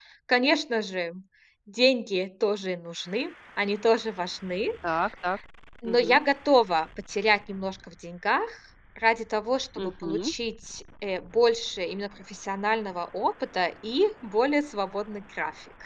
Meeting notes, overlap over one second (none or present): none